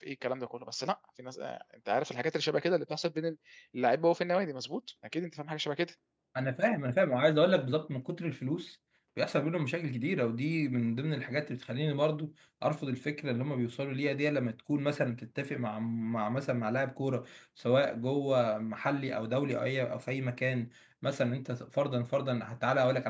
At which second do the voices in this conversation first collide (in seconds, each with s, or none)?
none